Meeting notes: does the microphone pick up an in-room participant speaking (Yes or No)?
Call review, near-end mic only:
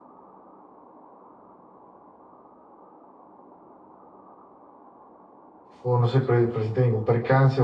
Yes